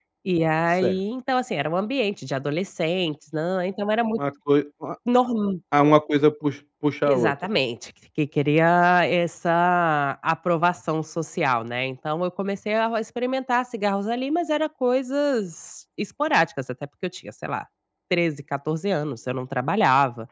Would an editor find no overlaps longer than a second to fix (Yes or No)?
Yes